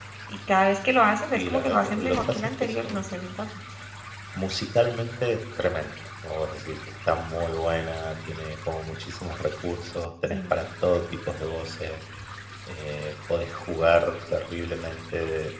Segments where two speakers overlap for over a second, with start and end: 1.4-3.1

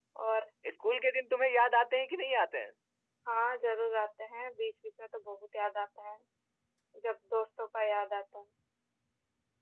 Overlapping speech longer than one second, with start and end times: none

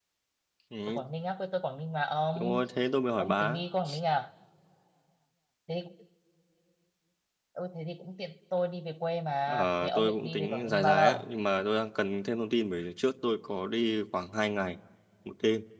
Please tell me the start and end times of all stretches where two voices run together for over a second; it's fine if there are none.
9.5-11.2

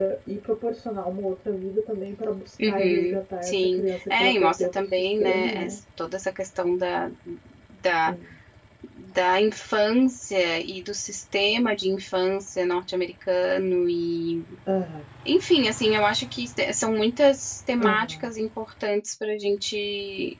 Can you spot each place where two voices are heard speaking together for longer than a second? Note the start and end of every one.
2.6-5.8

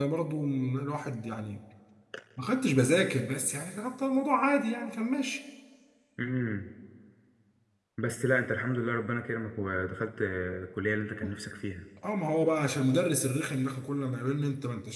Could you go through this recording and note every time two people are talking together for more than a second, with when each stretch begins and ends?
none

